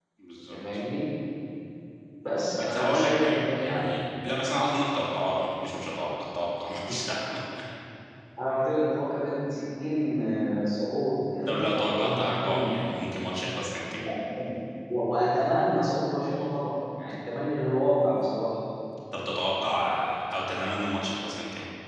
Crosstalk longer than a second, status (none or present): present